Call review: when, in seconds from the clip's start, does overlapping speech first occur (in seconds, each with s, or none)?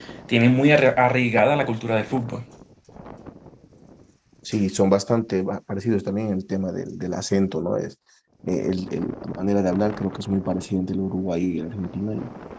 none